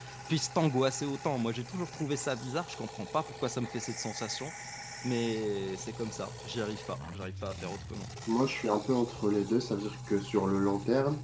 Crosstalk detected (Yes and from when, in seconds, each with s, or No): No